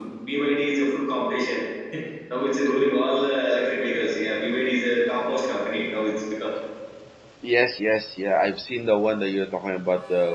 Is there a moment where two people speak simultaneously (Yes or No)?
No